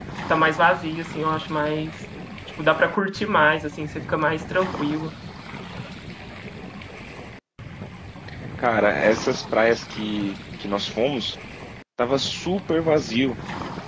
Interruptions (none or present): none